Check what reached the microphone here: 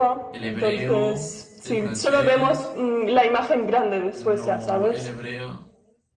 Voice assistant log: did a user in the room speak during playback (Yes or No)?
Yes